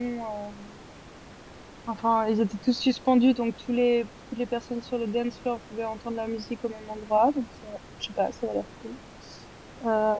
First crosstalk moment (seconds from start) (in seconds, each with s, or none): none